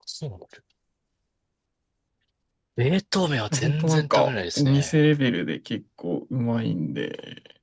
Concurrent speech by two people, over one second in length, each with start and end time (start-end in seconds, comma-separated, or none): 3.6-5.0